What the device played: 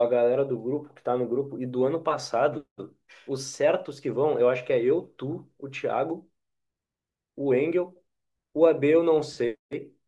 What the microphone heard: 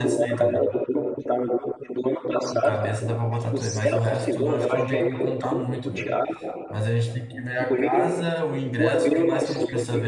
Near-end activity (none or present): present